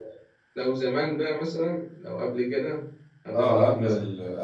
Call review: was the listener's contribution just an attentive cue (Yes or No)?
No